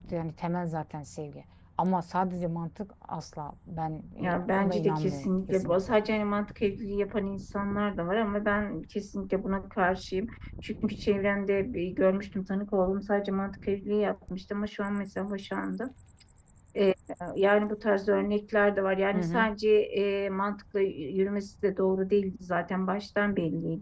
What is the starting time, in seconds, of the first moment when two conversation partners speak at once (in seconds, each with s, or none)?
4.2 s